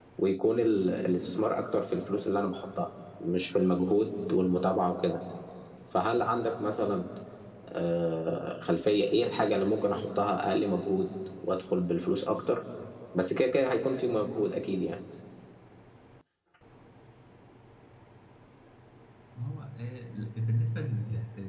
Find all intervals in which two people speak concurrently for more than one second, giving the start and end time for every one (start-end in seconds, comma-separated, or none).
none